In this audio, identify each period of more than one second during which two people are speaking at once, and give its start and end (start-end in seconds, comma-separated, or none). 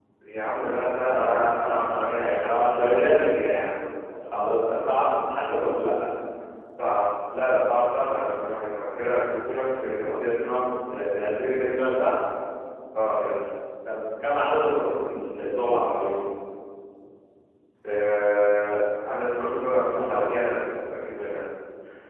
1.1-3.2